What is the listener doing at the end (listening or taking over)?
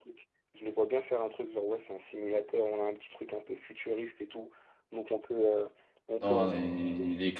taking over